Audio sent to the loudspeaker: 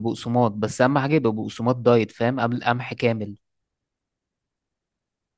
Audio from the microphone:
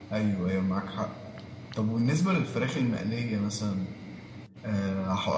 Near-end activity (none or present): present